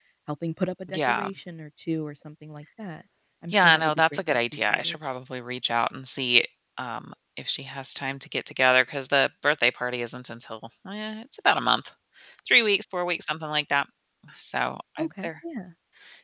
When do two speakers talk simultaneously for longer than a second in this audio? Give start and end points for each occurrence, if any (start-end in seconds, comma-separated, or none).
3.5-5.0